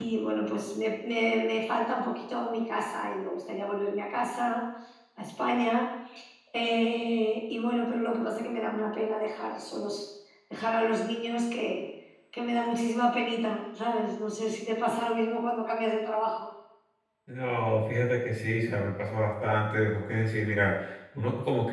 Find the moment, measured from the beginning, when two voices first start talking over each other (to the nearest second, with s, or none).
none